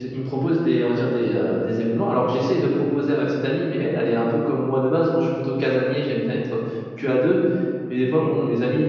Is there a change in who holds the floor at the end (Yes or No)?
No